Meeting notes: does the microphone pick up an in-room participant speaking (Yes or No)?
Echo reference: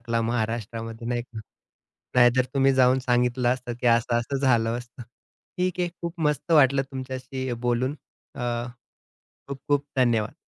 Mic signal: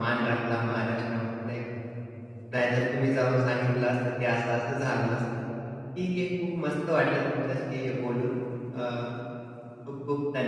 No